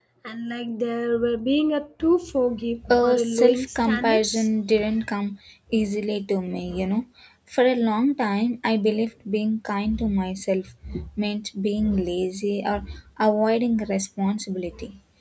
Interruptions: present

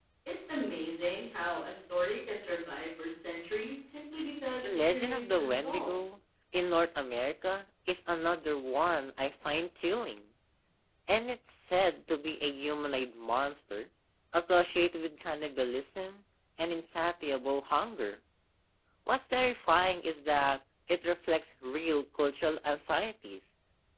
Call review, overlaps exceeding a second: present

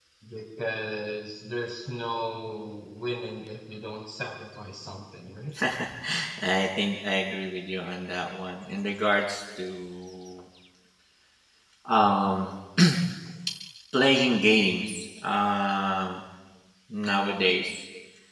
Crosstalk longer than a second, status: none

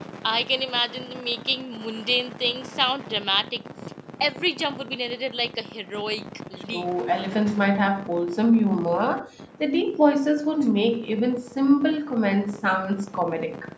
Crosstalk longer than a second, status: none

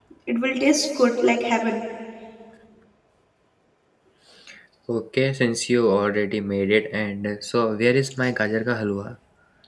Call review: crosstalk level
none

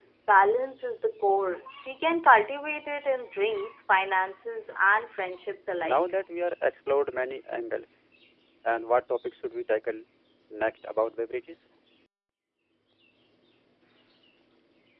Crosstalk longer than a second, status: none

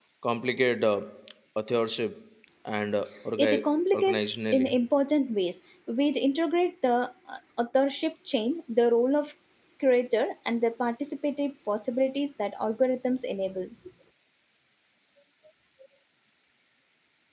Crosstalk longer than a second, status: present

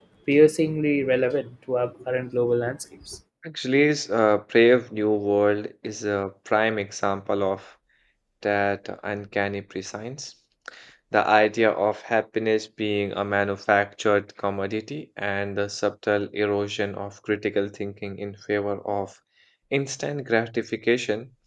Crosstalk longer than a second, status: none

